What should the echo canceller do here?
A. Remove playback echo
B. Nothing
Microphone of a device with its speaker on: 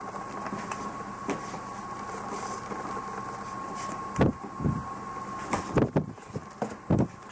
B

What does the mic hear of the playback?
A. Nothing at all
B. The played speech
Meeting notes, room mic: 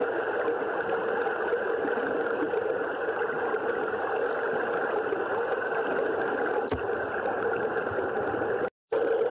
A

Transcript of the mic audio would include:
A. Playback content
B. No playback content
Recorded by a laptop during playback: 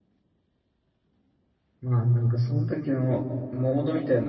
B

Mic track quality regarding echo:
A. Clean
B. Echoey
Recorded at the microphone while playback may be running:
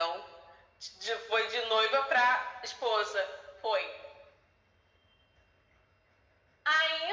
B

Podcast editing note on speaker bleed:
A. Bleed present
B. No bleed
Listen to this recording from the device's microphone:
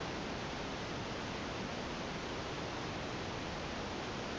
B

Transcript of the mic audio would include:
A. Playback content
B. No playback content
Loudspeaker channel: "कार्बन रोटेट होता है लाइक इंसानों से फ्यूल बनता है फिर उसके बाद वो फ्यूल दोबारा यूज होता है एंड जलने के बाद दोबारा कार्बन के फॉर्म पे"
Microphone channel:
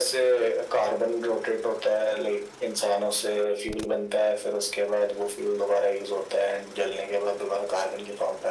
A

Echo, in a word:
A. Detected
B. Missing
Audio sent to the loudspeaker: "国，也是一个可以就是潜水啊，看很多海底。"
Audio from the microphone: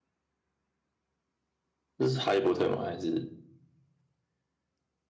B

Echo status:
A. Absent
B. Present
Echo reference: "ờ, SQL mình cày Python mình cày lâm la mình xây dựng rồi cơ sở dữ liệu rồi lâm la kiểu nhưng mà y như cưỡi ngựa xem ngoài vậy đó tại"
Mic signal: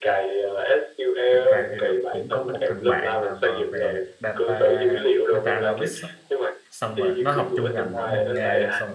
B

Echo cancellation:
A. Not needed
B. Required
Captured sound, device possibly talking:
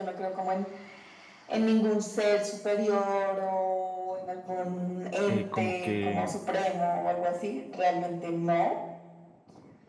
B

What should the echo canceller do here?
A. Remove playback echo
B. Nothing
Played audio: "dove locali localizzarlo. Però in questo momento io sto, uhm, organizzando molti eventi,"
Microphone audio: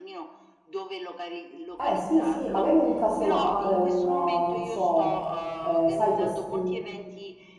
A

